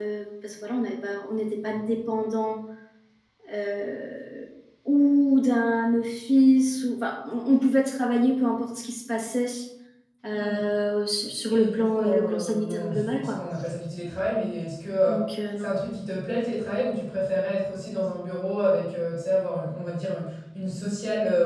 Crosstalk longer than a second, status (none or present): present